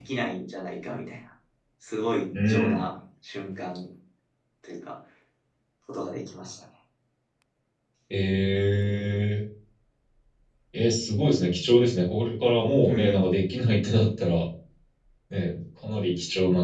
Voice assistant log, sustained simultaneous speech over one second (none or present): none